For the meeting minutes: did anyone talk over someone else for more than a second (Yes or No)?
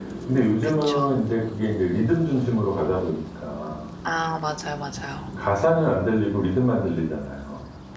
No